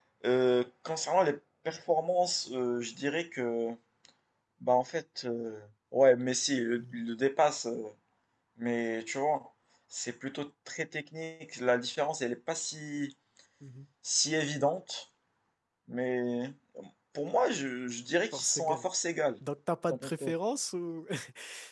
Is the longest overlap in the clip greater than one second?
No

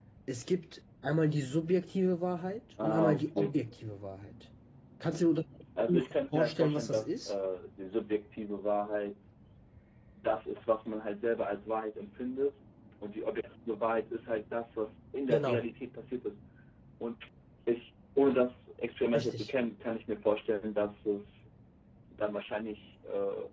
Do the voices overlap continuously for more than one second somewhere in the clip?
Yes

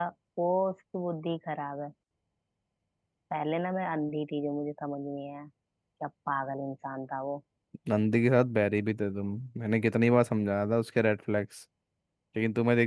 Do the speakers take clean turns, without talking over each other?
Yes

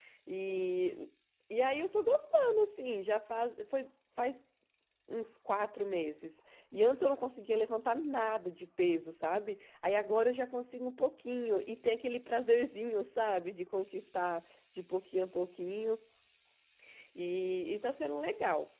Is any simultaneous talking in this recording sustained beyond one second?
No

